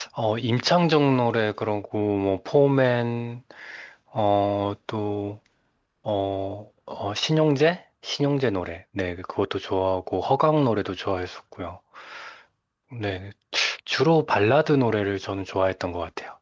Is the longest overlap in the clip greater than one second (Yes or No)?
No